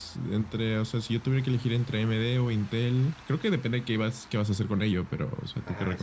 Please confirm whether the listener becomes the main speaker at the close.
Yes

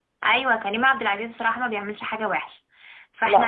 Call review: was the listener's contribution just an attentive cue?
Yes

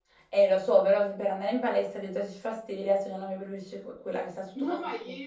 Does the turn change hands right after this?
Yes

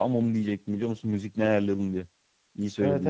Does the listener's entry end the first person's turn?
Yes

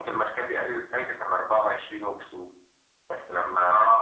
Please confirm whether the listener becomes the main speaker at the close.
No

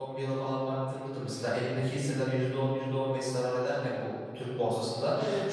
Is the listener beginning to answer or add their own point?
No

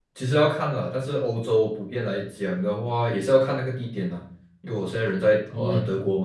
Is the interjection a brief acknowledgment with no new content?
Yes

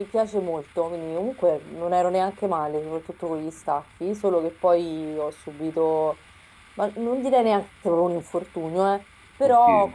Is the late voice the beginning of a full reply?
No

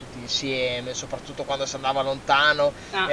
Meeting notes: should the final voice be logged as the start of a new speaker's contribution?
No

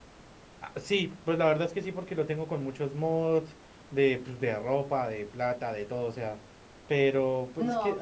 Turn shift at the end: Yes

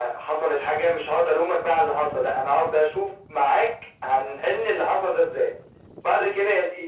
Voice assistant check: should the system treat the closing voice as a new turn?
No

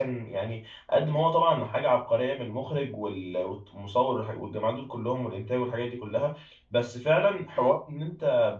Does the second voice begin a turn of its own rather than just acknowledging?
No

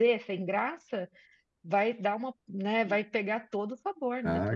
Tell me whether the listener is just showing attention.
No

